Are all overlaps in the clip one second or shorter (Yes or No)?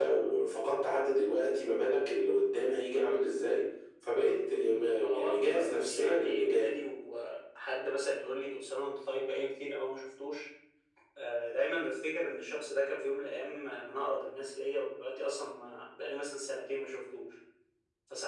No